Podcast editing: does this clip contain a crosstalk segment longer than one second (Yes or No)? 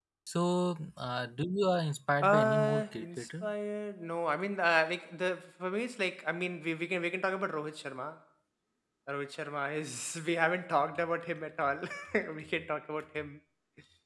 Yes